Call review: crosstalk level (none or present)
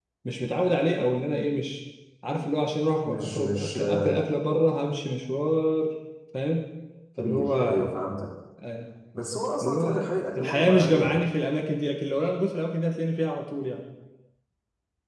present